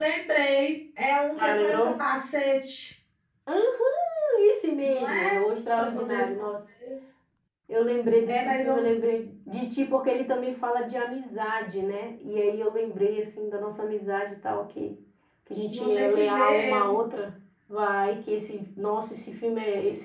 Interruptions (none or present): present